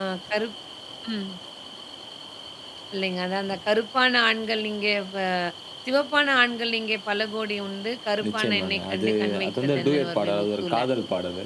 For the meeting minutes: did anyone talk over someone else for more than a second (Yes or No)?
Yes